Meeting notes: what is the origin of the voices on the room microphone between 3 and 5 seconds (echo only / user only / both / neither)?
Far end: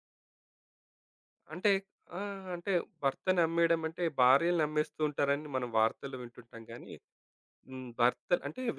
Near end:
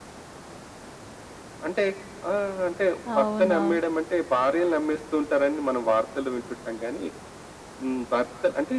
both